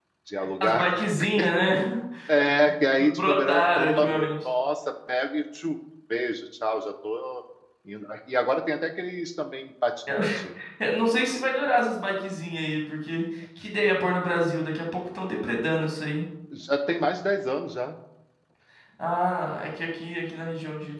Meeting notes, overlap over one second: present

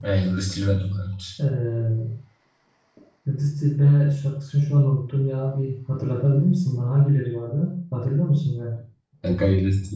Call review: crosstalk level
none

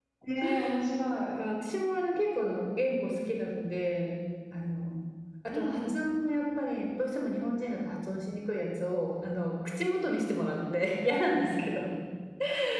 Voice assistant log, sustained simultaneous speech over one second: none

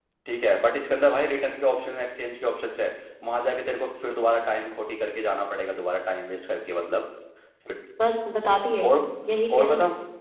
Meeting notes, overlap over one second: none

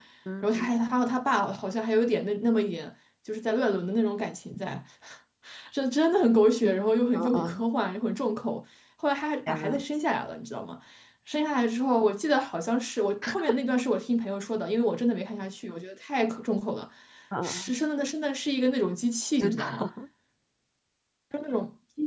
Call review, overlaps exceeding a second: none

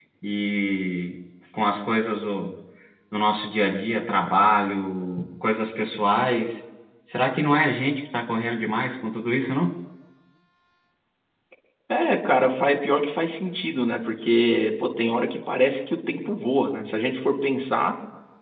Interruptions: none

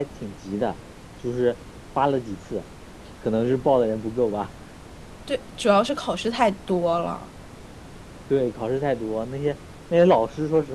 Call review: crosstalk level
none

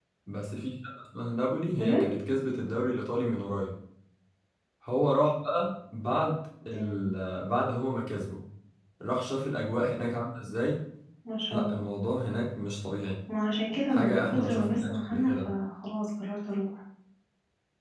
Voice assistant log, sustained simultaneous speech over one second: present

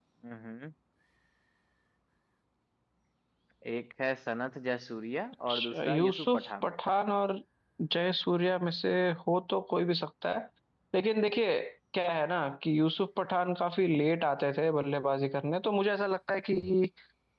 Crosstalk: present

